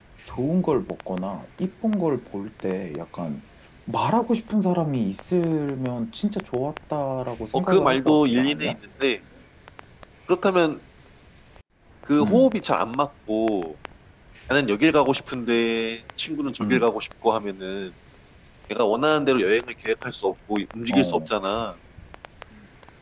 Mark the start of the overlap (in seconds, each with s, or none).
7.5 s